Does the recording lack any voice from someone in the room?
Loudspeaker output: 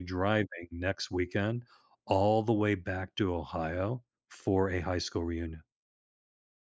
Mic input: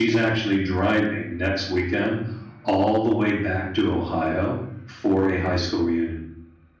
Yes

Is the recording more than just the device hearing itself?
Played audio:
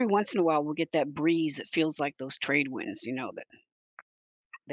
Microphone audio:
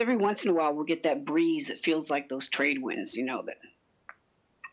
No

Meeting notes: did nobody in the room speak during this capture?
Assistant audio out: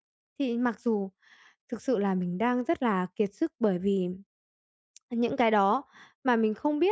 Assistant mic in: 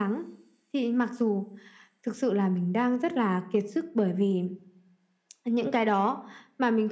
Yes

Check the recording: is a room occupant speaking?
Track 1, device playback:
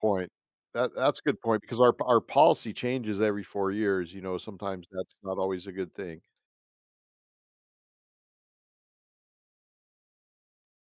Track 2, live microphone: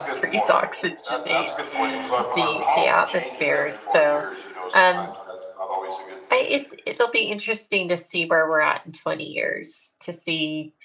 Yes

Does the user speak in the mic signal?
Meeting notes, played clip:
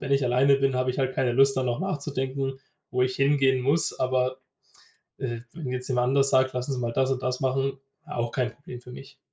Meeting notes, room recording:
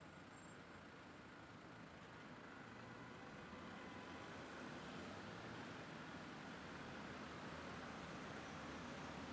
No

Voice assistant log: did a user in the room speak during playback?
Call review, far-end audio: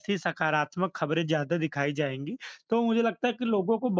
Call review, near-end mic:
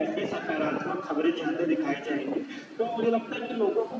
No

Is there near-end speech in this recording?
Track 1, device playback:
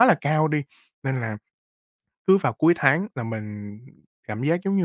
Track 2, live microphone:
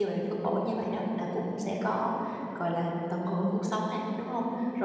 Yes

